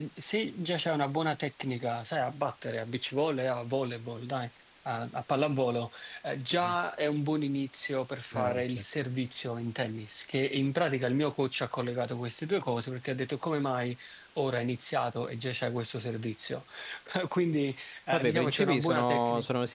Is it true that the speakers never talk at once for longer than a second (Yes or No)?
No